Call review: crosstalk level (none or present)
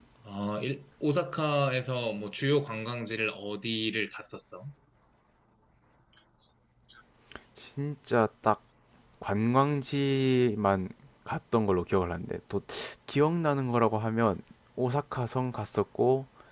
none